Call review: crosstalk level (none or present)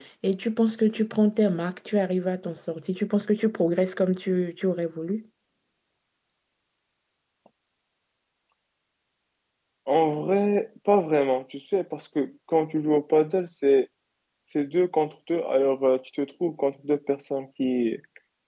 none